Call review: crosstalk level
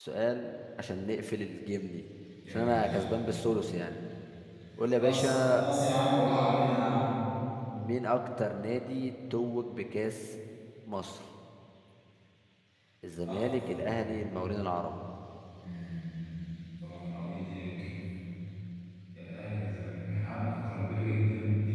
present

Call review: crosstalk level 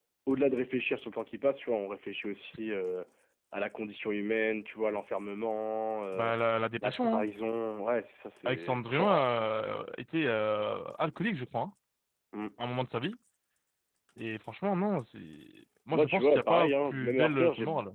present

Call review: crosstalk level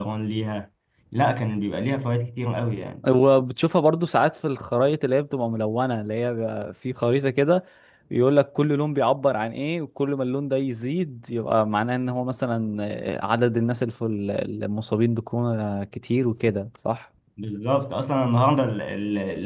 none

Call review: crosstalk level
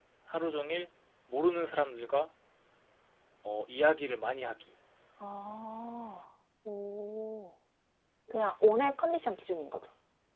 none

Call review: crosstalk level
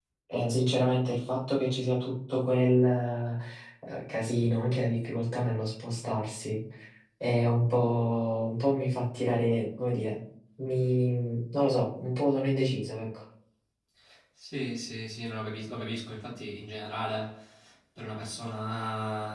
none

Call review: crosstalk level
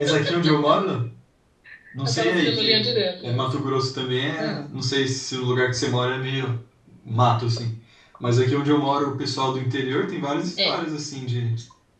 present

